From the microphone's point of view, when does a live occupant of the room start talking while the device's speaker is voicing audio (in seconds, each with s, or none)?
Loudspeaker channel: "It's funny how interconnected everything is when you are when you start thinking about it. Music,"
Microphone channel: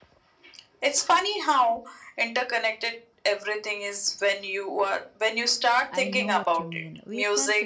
5.9 s